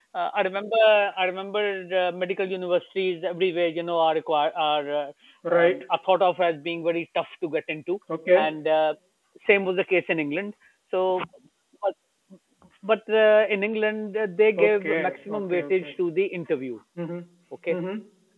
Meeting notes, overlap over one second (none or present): present